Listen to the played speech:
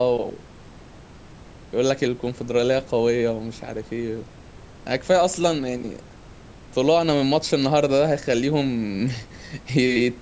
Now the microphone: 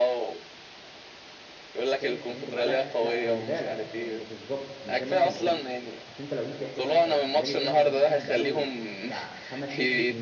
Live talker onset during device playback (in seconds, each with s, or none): 1.8 s